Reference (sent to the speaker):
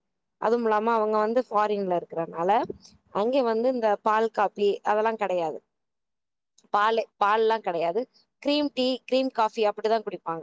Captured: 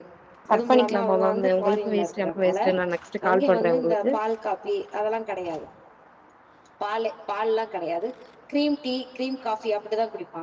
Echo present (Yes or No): Yes